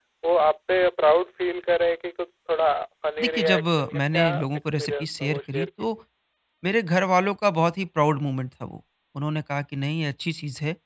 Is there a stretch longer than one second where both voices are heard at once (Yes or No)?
Yes